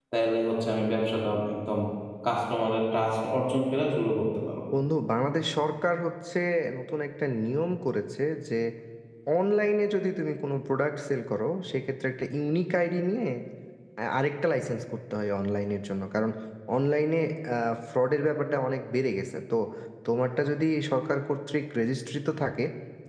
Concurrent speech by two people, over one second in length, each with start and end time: none

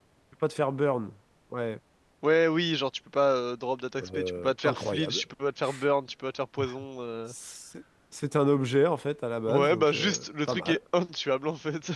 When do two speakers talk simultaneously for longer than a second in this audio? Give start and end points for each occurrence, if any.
4.0-5.2, 9.5-10.8

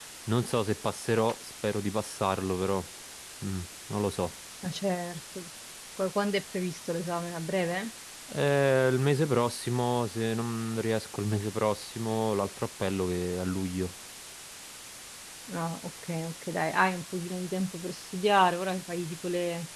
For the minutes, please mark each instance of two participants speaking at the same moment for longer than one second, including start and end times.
none

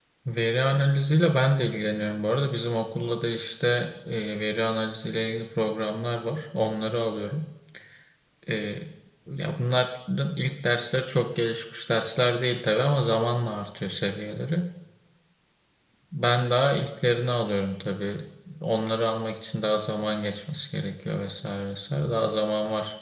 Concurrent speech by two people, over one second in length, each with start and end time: none

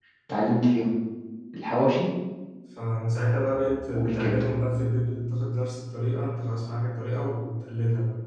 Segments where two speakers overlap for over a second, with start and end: none

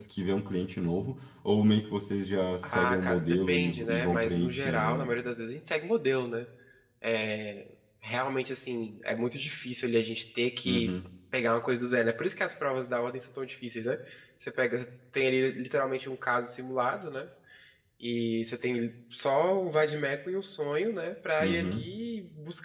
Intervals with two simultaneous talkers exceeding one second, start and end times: 2.6-5.1

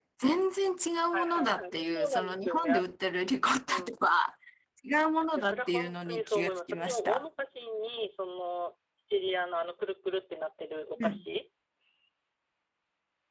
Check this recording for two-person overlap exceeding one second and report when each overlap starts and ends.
1.1-2.8, 5.4-7.2

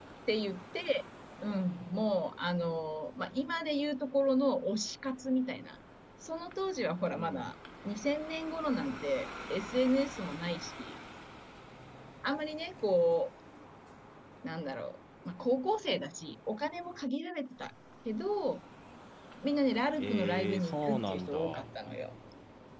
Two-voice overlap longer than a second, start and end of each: 20.0-21.7

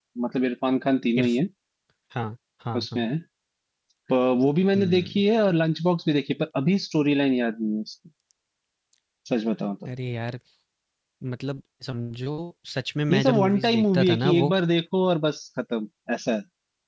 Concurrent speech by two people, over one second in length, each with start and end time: 13.1-14.5

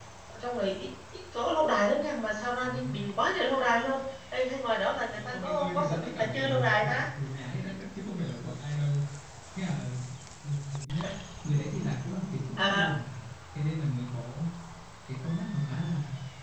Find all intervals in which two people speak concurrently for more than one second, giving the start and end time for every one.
5.1-7.0

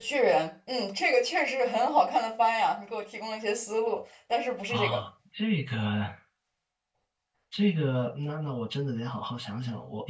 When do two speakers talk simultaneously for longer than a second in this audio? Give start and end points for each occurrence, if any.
none

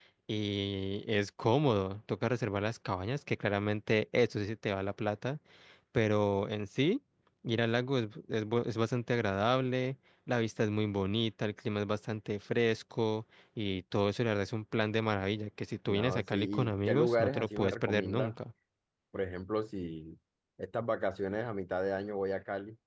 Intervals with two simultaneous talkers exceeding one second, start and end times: 15.9-18.3

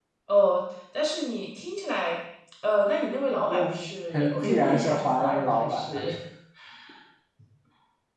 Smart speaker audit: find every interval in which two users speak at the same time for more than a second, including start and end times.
4.1-6.0

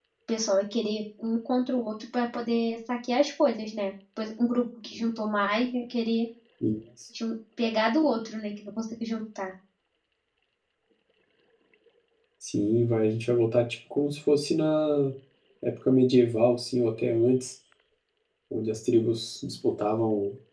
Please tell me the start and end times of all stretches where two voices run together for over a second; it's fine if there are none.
none

